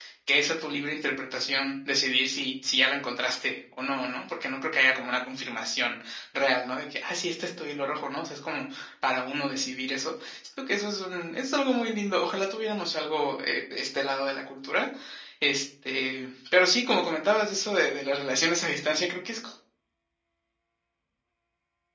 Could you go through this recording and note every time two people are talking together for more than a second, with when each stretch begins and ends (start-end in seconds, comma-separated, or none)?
none